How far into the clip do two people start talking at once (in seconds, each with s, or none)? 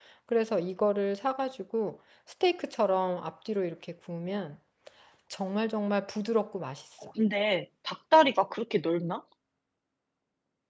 none